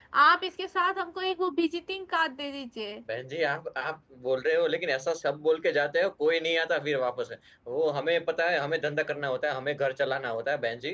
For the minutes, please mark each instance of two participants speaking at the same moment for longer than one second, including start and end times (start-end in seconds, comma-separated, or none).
none